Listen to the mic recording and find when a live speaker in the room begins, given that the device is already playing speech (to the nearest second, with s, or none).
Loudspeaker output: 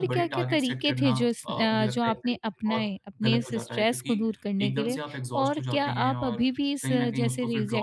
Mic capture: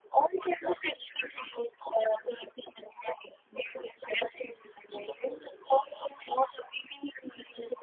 none